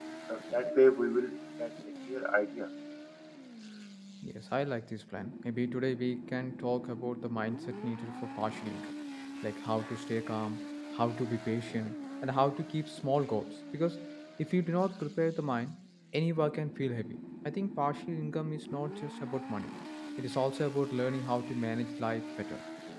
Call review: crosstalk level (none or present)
none